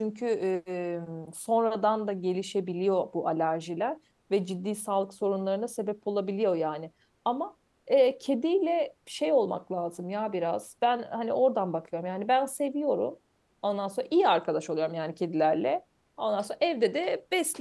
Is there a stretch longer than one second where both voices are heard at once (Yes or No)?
No